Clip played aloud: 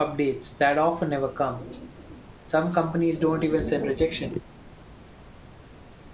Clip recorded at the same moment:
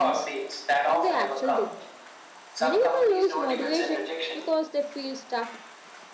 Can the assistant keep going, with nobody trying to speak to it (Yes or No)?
No